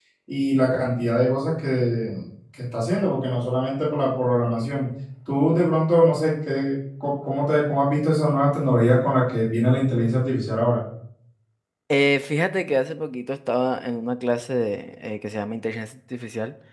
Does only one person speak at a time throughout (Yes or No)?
Yes